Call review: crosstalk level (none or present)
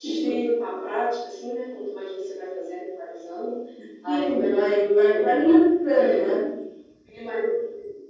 present